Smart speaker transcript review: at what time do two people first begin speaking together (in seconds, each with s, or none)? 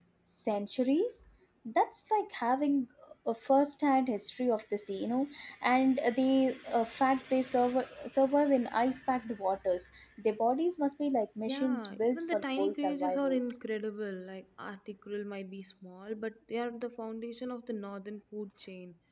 11.5 s